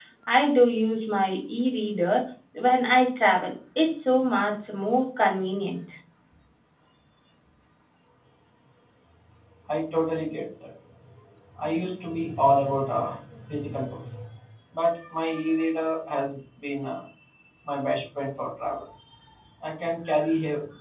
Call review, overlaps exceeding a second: none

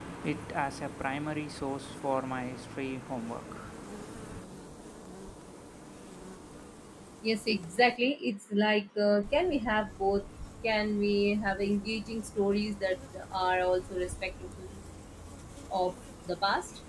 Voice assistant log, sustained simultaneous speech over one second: none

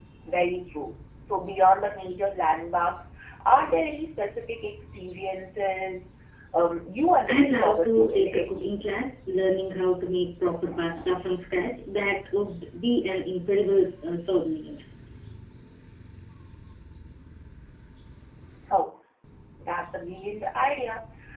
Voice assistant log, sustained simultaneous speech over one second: present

